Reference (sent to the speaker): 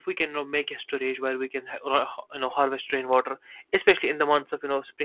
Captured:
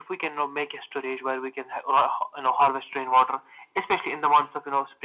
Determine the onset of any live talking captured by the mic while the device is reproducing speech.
none

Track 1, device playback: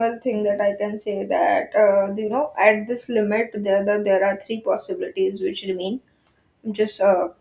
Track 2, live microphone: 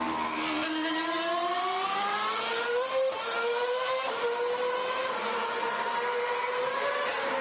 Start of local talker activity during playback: none

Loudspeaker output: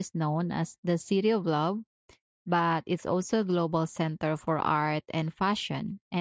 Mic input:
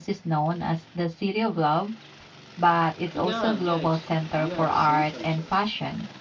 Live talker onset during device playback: 3.1 s

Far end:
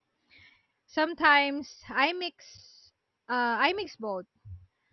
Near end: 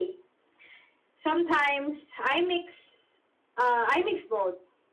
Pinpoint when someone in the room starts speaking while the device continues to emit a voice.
none

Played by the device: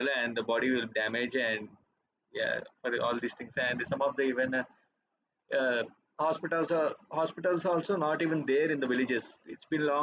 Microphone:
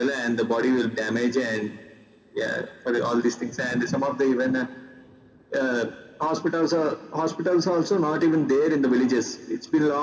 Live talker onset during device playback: none

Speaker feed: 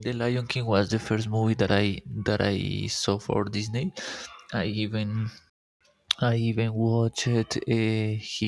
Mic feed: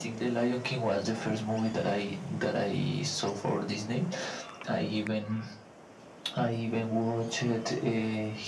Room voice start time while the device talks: none

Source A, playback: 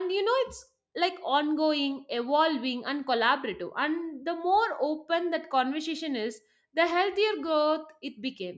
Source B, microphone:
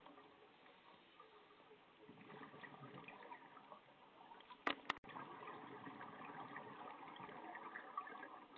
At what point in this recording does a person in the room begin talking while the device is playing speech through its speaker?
none

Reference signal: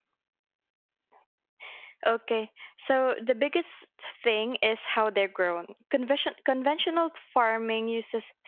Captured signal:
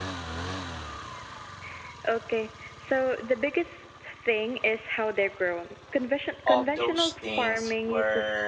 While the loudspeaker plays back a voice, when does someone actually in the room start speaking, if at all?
6.5 s

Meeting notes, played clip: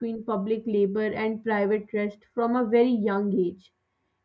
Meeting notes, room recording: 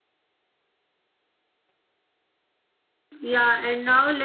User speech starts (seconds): 3.2 s

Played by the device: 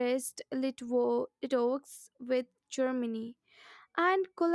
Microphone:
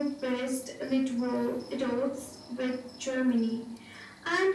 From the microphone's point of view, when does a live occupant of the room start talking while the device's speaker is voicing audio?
none

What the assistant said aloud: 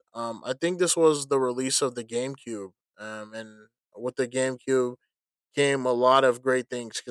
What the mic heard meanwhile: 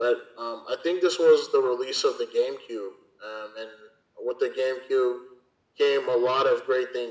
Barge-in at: none

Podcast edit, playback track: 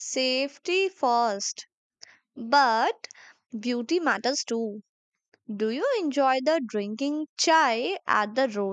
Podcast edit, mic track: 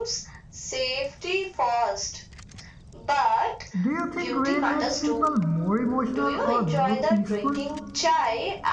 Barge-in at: 3.8 s

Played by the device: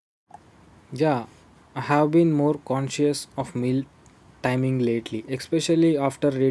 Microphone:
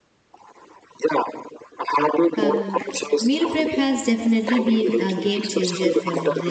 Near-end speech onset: 2.4 s

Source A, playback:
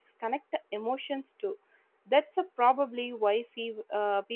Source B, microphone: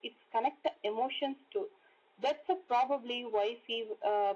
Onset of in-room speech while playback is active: none

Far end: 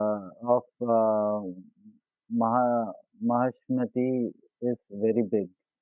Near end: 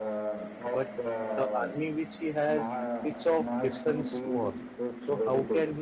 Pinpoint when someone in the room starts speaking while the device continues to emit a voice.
0.7 s

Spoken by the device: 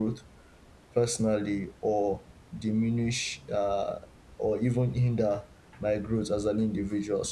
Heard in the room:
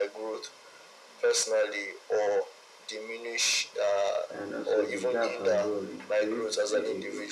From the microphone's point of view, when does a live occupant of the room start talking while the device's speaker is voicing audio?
4.3 s

